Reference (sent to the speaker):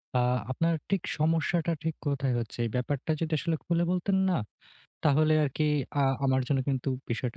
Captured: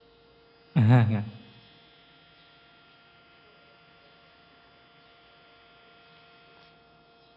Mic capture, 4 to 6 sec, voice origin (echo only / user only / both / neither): neither